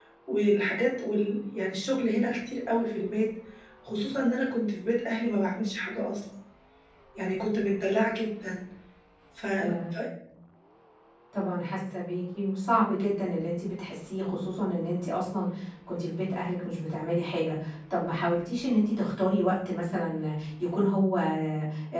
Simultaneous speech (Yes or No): No